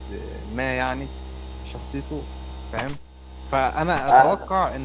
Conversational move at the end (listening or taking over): listening